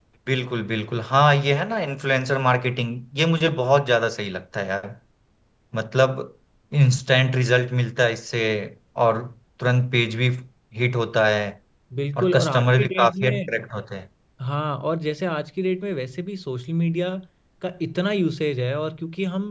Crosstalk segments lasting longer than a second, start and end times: 12.2-13.6

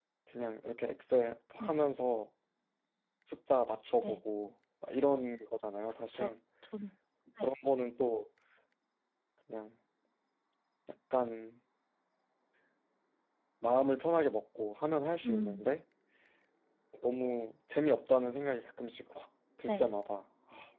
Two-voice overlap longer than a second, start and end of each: none

